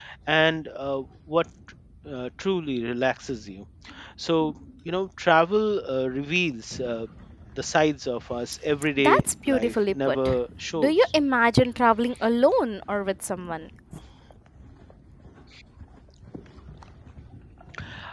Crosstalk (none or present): present